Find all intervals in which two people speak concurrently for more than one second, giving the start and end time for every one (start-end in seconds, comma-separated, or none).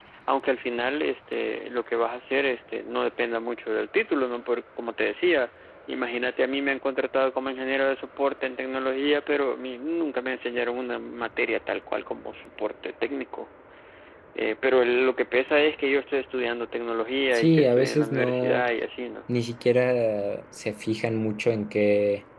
17.3-18.6